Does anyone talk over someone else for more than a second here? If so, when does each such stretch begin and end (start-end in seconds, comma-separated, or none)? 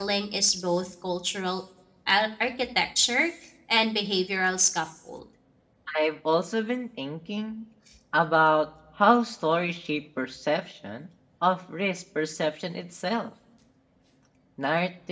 none